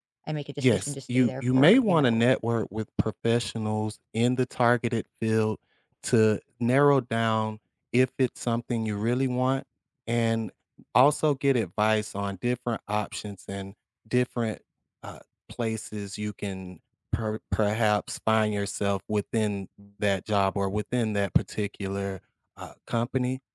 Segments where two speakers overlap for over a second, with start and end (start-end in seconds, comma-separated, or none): 0.6-2.2